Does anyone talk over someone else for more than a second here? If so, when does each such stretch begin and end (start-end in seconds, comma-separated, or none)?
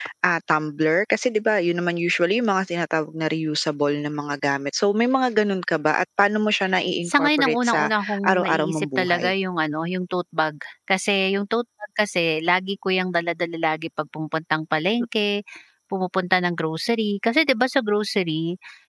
7.0-9.3